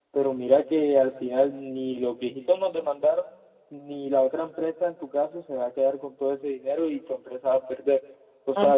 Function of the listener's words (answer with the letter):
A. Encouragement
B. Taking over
B